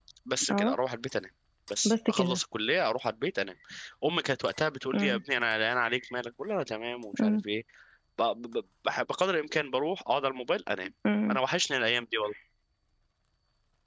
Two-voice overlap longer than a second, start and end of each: none

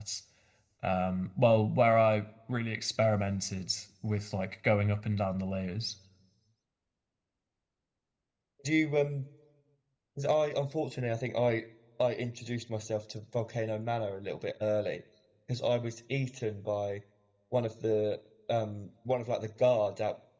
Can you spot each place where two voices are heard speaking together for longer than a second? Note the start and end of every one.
none

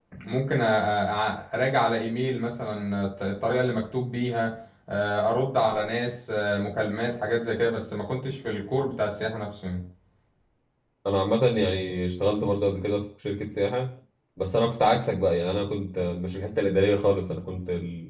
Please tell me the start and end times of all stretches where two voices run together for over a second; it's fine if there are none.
none

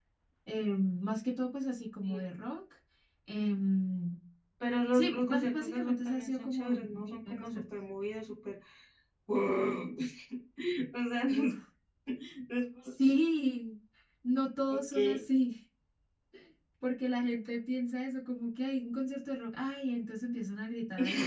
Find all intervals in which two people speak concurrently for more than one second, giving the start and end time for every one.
4.9-7.6

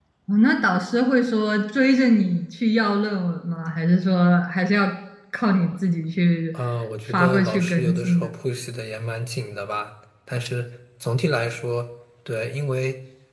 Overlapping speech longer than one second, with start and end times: 7.1-8.3

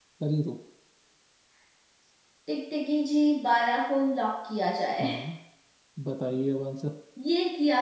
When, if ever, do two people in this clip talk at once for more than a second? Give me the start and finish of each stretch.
none

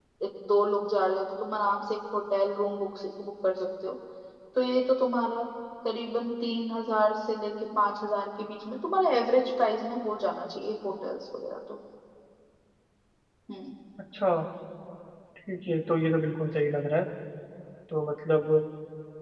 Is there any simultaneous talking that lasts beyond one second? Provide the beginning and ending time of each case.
none

